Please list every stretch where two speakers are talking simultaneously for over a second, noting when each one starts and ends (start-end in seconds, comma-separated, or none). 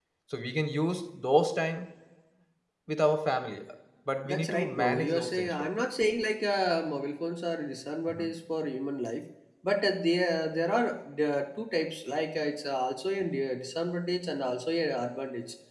4.2-5.6